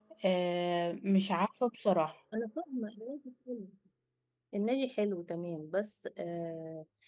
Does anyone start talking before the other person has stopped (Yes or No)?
No